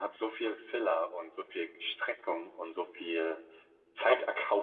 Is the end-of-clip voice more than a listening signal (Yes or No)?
No